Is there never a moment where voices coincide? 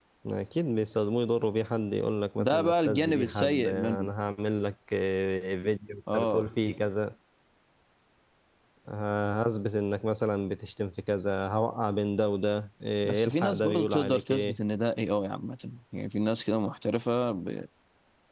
No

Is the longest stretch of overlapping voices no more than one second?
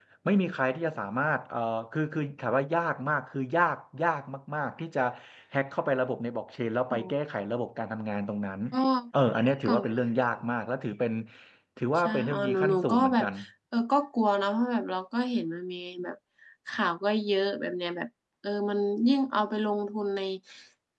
No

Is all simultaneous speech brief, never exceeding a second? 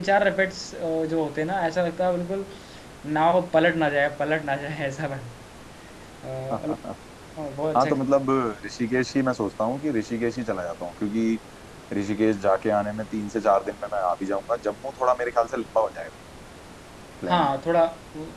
Yes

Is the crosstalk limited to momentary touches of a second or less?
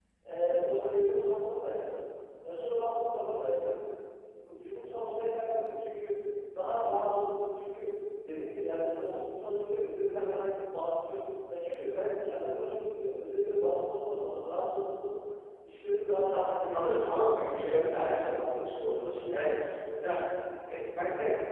No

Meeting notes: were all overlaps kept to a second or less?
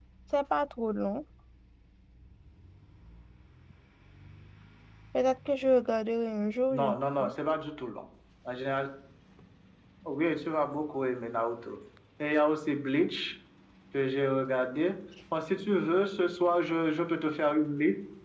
Yes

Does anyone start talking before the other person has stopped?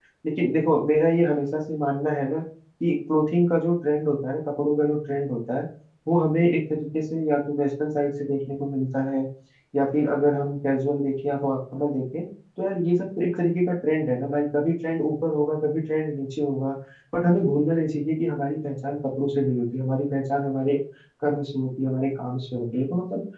No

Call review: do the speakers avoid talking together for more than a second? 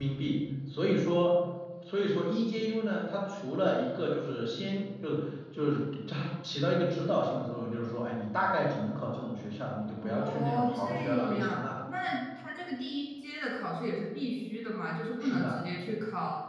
No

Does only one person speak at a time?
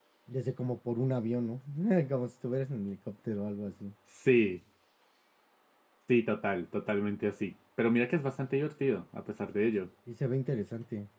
Yes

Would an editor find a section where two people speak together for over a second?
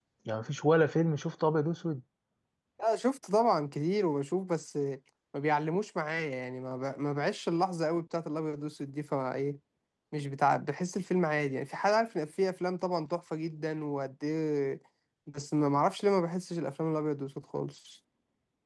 No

